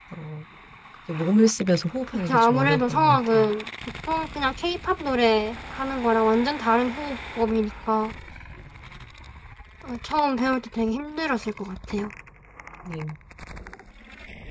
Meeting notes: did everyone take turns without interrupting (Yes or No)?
No